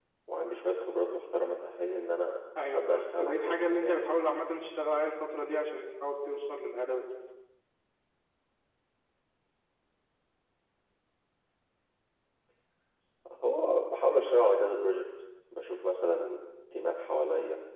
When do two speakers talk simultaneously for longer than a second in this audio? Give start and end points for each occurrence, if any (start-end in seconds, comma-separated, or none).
2.7-4.1